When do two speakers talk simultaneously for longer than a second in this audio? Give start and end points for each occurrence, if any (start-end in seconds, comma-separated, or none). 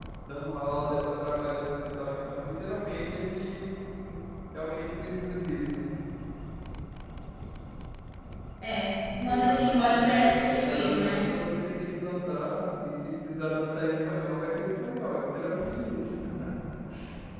9.2-11.2